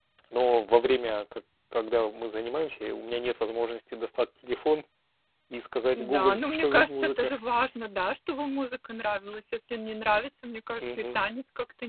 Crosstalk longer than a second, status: present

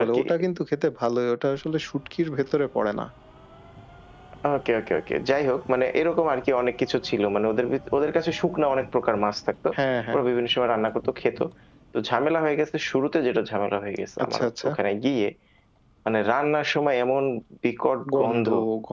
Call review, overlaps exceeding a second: none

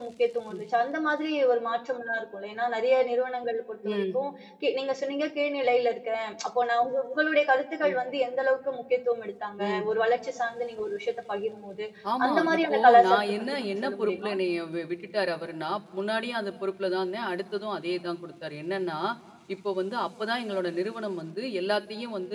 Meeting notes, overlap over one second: present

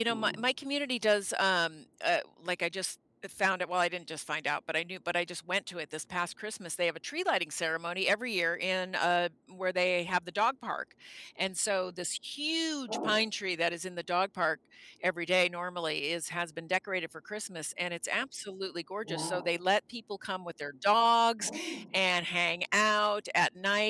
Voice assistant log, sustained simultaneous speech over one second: none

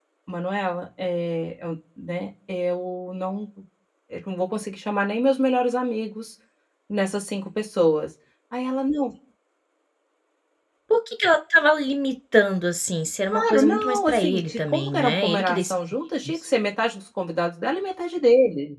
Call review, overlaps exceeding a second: present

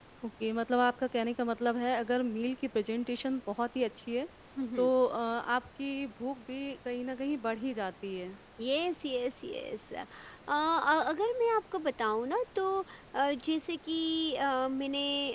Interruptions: none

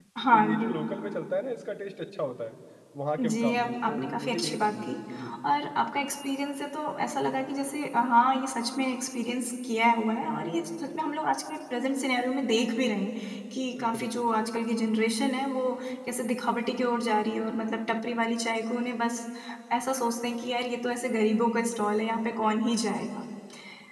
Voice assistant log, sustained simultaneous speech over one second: present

